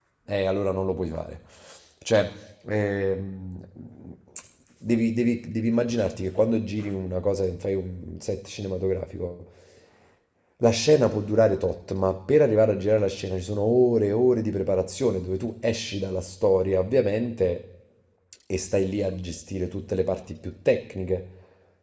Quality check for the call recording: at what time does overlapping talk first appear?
none

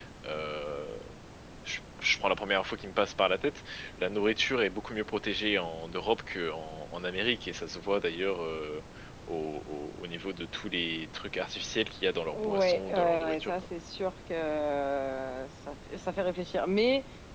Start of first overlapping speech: 12 s

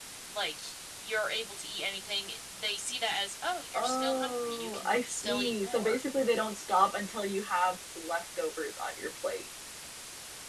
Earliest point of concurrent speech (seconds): 4 s

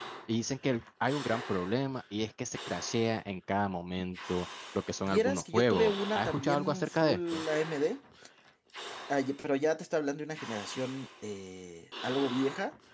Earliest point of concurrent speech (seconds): 5 s

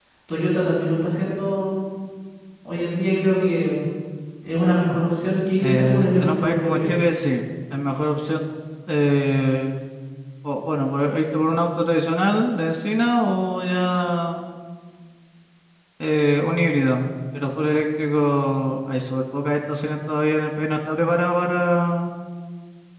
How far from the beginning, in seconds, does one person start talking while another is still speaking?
6 s

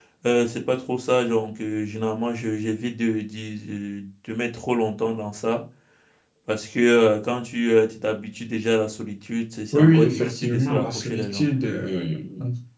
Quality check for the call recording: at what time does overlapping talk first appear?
10 s

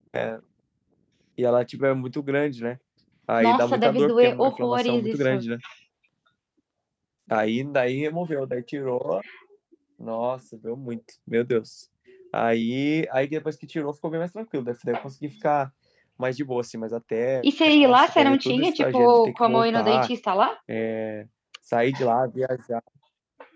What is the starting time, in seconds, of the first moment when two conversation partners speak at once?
3 s

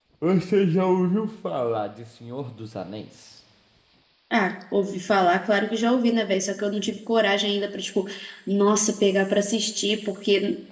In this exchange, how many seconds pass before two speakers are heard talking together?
none

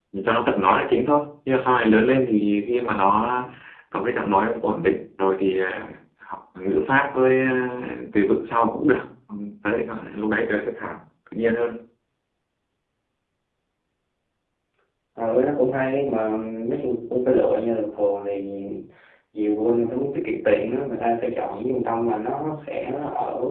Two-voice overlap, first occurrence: none

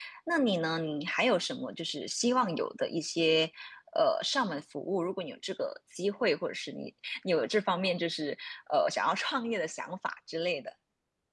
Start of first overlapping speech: none

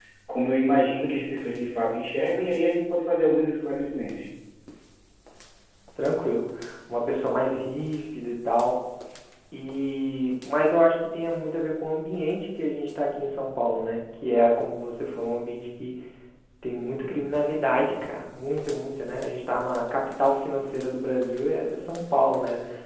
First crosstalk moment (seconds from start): none

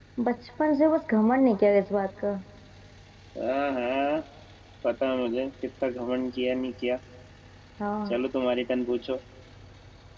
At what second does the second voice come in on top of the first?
none

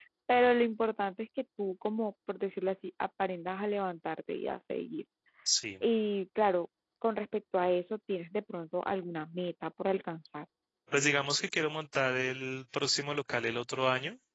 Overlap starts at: none

